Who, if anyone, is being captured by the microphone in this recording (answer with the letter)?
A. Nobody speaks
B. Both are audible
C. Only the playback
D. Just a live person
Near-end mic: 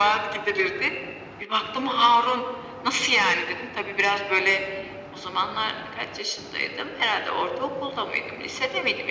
C